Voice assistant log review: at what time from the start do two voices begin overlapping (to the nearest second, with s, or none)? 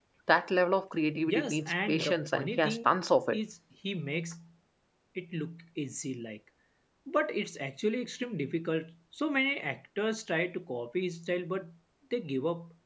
1 s